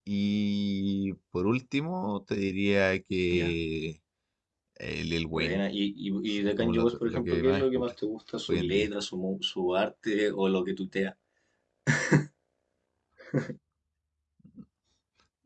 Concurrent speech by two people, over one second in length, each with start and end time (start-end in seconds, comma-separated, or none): 6.4-7.9